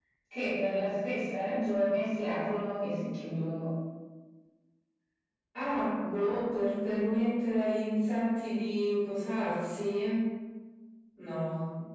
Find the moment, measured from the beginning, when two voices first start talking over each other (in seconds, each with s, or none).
none